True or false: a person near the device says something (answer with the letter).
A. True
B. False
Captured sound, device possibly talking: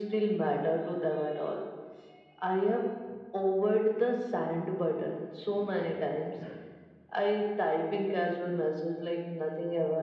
B